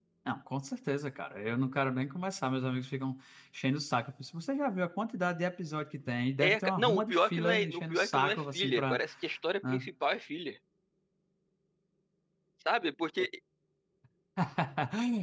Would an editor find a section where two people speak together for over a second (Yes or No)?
Yes